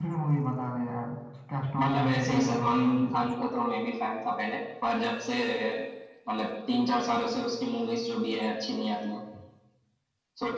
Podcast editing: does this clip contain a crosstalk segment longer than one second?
Yes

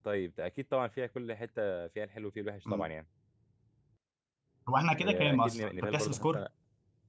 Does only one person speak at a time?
No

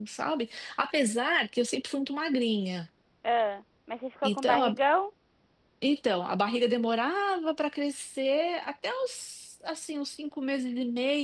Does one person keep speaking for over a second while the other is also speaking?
No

